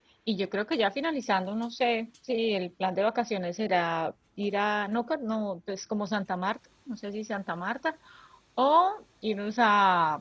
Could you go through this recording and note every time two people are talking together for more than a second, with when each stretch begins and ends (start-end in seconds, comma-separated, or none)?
none